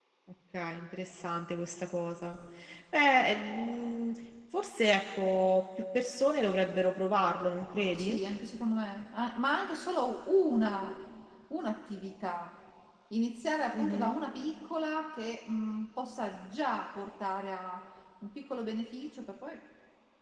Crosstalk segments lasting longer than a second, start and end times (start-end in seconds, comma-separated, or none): none